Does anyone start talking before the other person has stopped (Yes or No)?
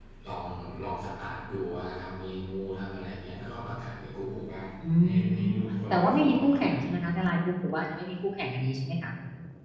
Yes